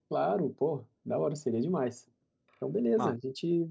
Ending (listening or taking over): listening